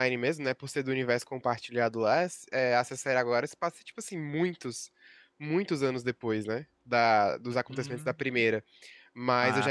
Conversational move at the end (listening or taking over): listening